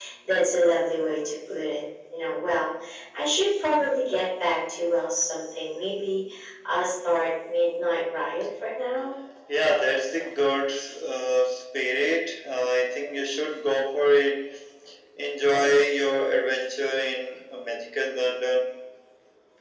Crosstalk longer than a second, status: none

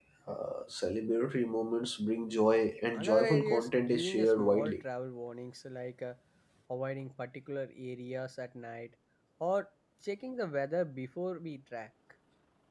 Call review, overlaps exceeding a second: present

